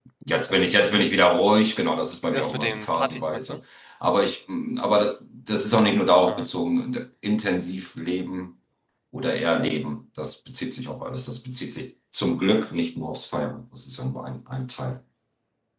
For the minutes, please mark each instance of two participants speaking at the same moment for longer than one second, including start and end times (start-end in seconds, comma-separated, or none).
2.3-3.6